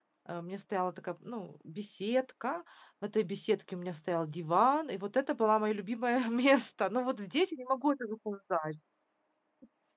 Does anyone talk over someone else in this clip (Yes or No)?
No